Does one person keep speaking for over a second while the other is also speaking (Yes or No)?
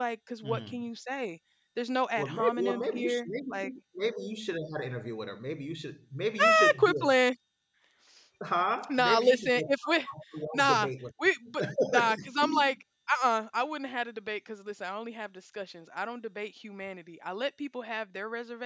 Yes